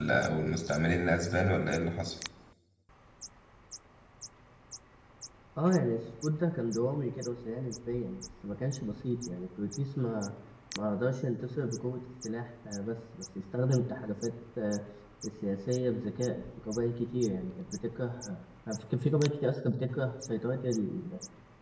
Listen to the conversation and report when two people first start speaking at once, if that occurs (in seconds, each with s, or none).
none